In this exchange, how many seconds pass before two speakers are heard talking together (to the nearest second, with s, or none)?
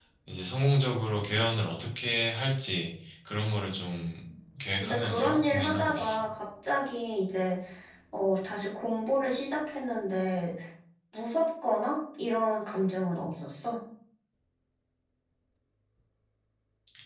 5 s